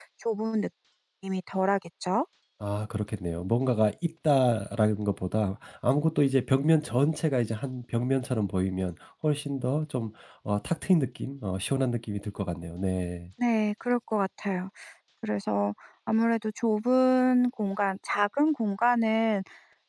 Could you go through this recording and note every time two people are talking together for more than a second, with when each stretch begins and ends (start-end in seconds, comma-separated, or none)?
none